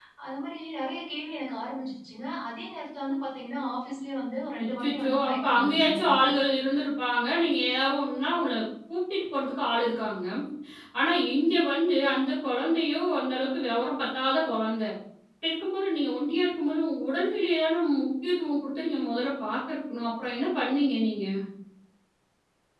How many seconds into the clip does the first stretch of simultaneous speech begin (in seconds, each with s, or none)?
4.5 s